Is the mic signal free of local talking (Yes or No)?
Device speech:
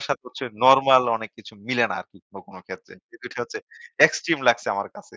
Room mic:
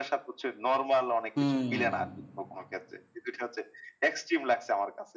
No